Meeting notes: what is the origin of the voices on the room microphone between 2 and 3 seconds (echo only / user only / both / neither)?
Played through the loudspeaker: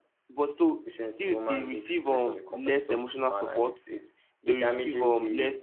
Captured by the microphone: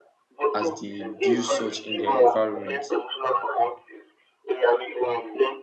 both